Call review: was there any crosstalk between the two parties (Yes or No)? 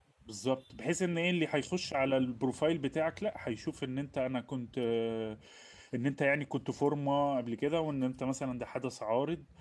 No